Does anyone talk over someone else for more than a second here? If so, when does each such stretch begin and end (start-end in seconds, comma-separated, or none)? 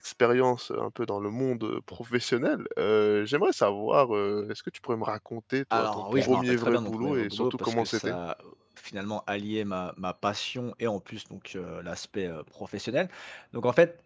5.7-8.2